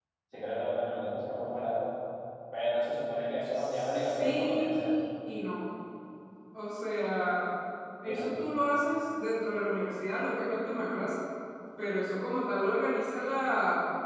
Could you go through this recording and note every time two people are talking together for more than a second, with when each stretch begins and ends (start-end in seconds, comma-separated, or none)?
3.5-4.9